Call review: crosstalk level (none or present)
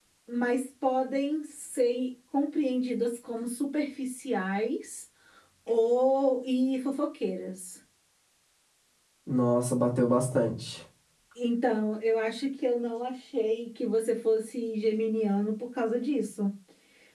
none